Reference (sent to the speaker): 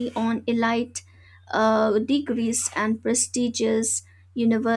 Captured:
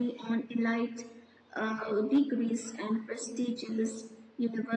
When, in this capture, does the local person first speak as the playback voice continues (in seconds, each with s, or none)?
none